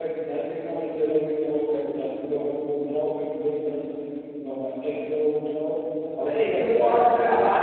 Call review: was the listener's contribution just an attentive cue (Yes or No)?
No